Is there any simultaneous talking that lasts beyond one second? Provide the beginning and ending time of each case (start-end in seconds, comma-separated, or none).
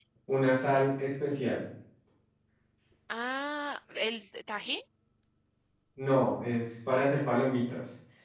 none